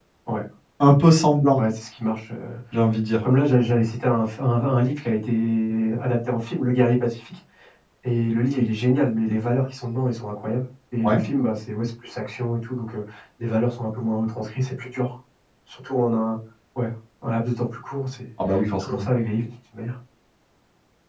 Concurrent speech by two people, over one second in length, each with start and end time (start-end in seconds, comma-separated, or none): none